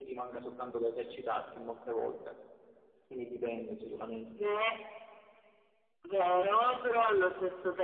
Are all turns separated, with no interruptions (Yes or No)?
Yes